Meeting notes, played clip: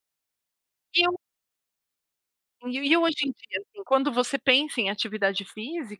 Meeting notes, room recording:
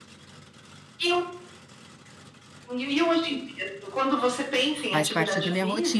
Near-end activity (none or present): present